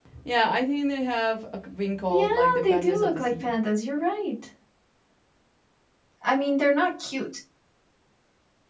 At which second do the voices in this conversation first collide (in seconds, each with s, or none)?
2.1 s